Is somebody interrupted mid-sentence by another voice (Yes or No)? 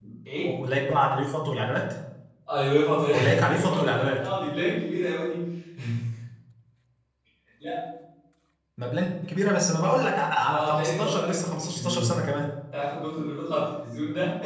Yes